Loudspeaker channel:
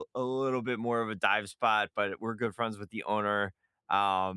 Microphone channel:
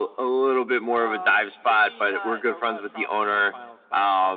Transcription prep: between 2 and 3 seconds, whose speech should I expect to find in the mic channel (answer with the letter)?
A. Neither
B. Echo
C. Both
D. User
C